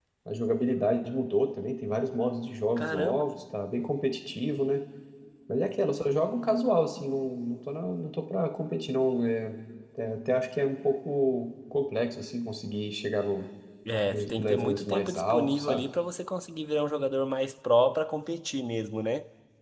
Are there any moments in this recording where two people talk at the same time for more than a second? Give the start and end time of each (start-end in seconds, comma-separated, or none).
14.1-15.8